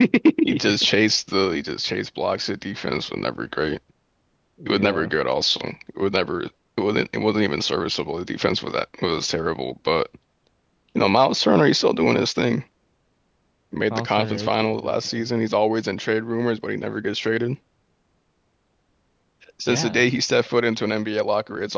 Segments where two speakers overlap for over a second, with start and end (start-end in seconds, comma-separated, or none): 13.9-15.2